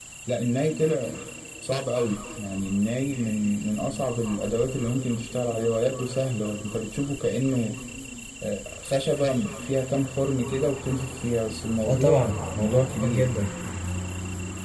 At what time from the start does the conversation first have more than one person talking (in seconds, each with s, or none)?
11.8 s